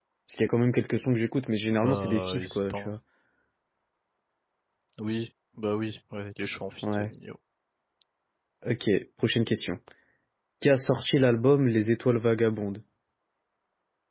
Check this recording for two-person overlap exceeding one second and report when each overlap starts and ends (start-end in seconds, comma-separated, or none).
1.7-2.9